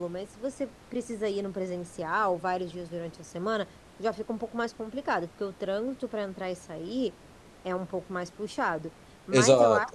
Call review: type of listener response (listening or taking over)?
listening